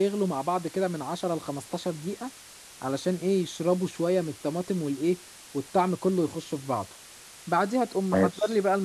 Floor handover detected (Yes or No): No